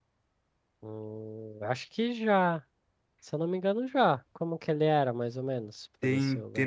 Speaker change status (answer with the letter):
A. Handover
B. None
A